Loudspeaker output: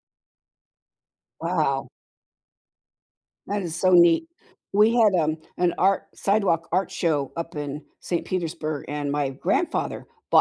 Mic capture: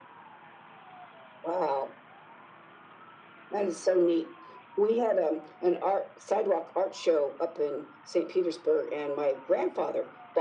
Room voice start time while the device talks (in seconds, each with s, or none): none